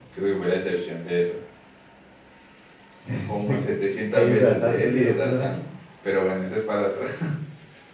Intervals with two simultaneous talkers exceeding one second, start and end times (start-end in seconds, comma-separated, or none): 4.1-5.6